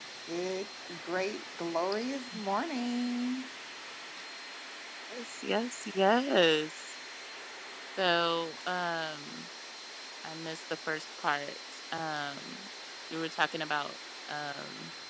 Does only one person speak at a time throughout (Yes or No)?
Yes